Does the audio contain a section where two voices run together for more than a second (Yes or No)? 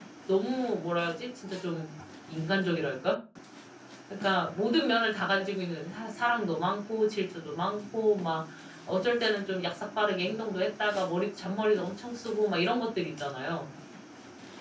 No